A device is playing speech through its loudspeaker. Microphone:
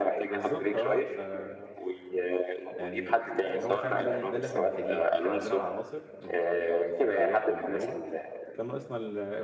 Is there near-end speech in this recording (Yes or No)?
Yes